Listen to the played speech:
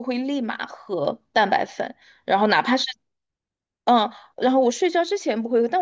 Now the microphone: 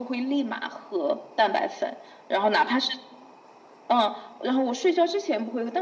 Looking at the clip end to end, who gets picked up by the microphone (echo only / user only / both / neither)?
echo only